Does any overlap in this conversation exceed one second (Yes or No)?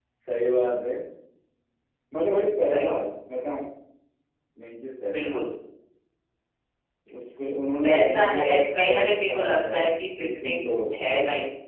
Yes